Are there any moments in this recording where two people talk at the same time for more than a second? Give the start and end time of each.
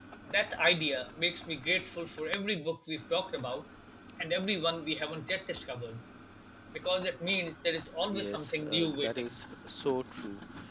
8.1-9.4

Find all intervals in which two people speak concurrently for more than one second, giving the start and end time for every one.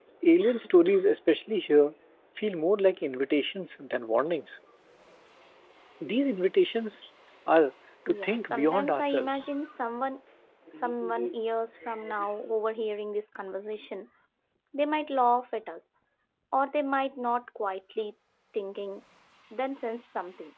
8.1-9.5

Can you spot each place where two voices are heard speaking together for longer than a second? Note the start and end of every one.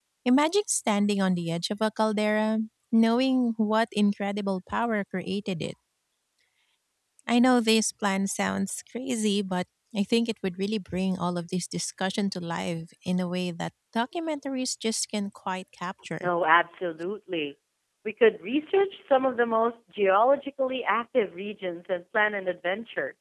none

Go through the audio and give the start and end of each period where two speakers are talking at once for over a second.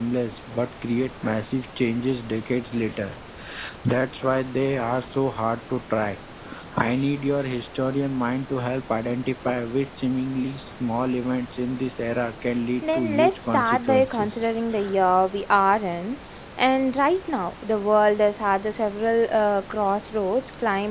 12.9-14.4

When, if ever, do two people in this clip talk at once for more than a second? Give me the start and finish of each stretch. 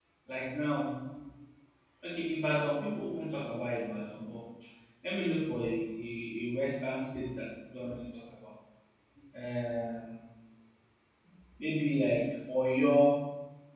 none

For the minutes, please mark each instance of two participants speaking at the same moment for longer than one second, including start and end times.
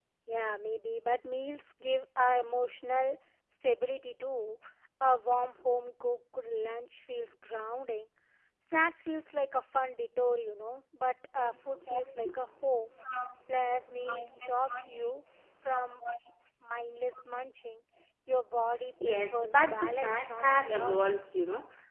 19.1-21.1

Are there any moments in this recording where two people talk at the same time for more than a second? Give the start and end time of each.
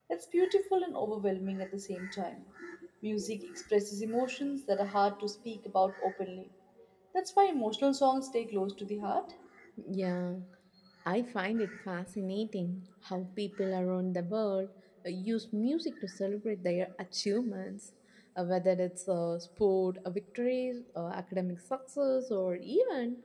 none

